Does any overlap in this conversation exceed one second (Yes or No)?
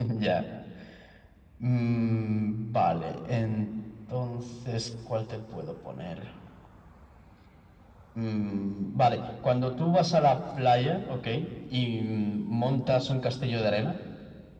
No